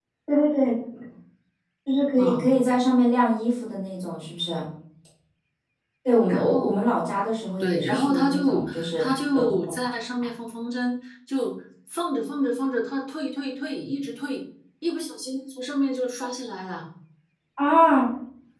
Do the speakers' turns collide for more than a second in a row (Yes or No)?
Yes